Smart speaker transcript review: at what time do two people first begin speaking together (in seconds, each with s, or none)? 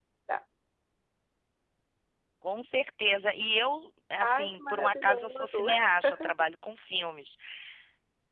4.2 s